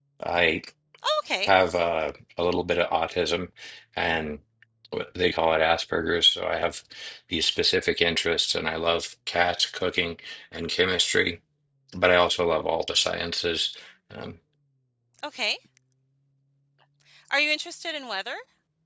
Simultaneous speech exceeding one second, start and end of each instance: none

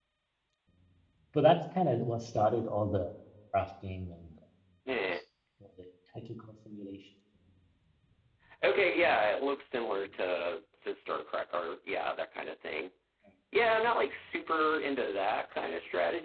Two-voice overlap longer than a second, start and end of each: none

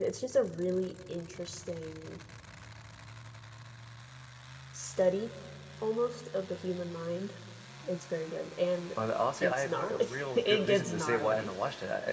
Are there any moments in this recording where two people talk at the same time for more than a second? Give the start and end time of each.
9.4-11.5

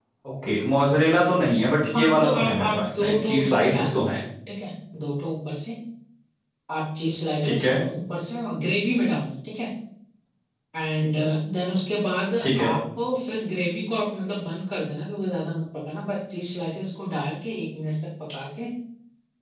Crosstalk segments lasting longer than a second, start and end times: 1.9-4.2

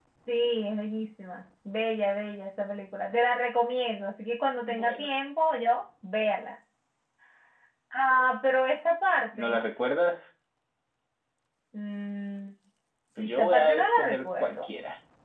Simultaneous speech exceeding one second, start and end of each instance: 13.2-14.7

